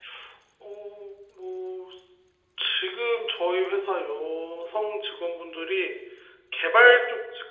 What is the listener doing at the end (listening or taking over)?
listening